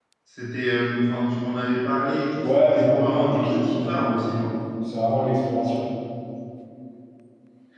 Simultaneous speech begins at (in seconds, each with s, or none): 2.4 s